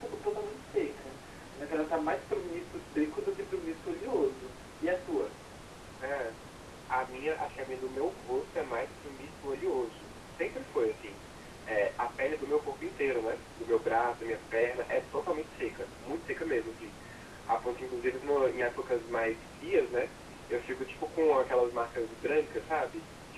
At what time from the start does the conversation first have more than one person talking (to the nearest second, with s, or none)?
none